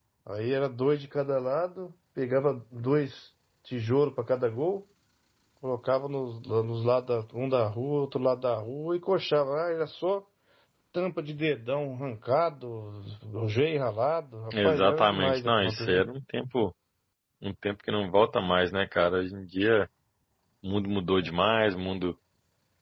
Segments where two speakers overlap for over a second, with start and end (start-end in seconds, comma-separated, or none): 14.5-16.0